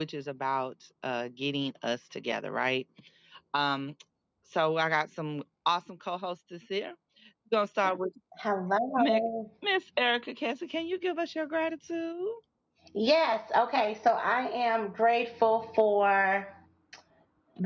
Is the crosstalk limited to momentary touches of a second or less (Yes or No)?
Yes